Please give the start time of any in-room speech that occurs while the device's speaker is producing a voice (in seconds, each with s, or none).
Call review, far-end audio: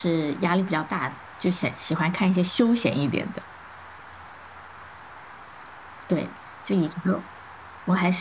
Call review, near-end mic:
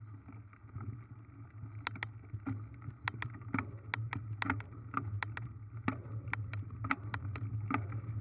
none